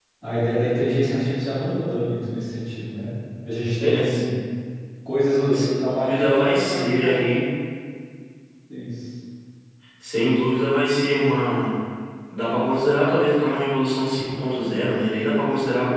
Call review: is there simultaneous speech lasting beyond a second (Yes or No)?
Yes